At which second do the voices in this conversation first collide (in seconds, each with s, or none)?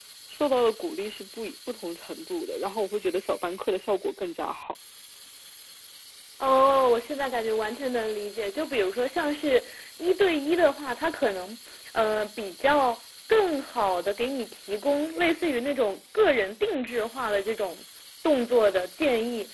none